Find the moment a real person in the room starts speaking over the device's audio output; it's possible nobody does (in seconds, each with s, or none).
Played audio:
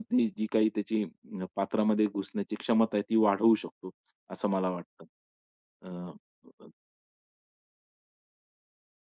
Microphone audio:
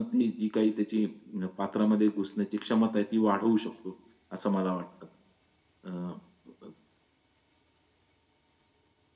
none